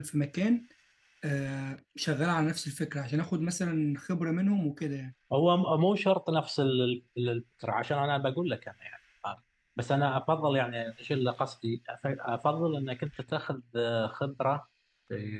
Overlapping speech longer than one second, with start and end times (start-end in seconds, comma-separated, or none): none